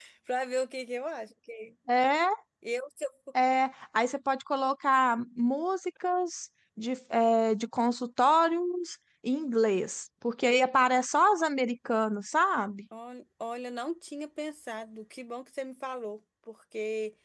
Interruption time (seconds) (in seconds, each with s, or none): none